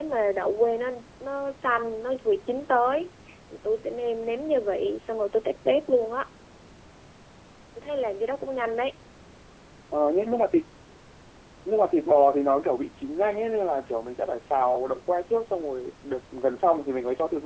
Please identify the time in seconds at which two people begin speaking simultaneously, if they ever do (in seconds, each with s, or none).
none